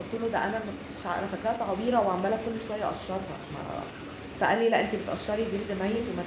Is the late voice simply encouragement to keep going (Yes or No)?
Yes